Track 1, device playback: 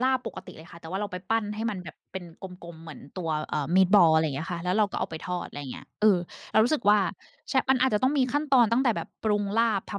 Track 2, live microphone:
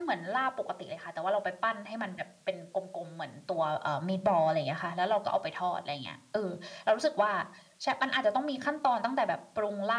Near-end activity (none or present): none